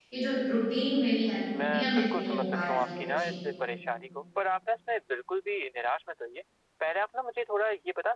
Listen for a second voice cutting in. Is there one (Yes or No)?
Yes